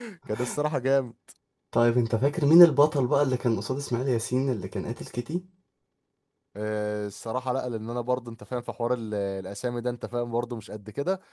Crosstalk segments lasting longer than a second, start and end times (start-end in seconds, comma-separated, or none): none